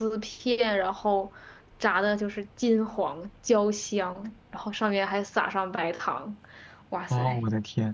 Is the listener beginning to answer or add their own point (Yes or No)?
Yes